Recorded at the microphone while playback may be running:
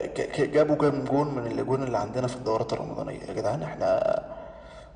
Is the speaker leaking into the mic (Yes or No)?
Yes